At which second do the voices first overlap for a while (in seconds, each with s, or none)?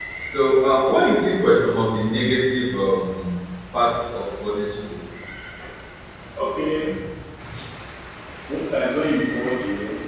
none